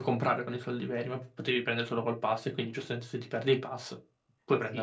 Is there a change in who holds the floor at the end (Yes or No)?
Yes